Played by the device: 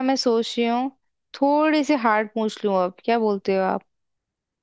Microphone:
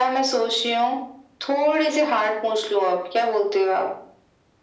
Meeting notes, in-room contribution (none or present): none